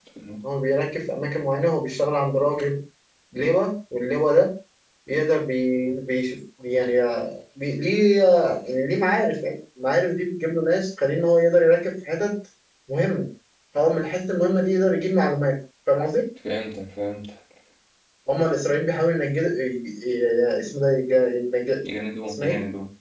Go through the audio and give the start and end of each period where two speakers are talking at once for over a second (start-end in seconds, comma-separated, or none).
none